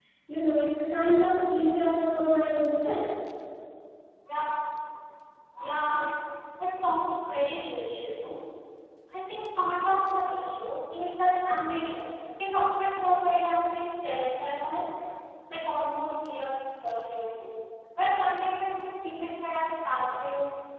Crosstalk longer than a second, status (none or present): none